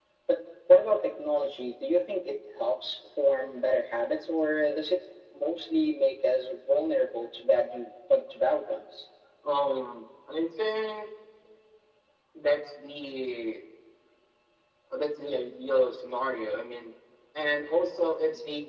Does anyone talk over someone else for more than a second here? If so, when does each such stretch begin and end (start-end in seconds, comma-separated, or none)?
none